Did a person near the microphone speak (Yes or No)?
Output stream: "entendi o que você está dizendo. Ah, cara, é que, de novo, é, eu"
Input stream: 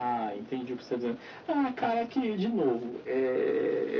No